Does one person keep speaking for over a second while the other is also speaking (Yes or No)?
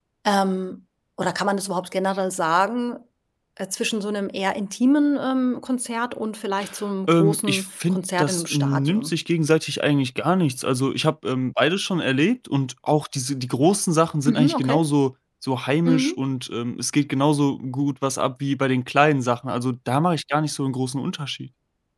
Yes